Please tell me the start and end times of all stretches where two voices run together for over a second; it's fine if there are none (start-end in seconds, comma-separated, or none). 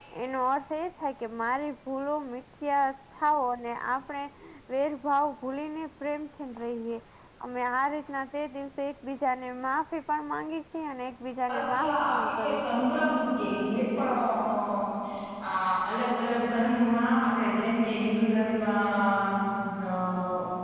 11.6-12.9